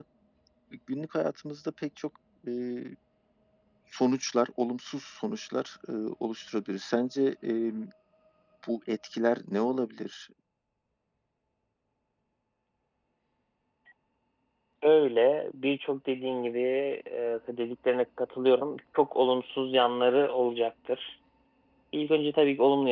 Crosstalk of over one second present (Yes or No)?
No